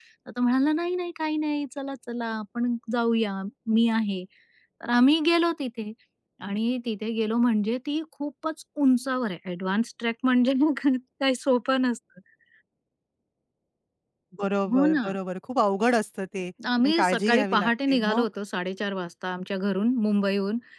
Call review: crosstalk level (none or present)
present